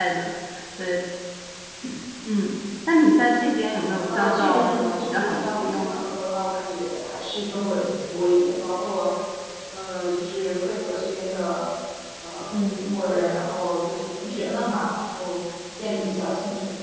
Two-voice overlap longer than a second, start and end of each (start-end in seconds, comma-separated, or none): 4.2-6.0